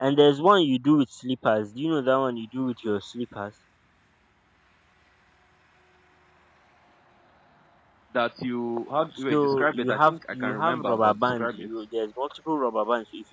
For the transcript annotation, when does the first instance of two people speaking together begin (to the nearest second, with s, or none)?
9 s